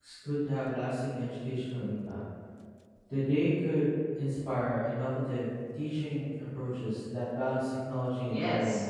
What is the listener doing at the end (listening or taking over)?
taking over